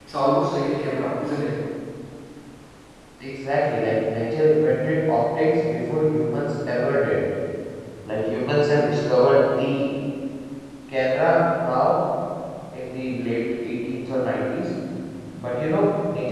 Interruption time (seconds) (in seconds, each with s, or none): none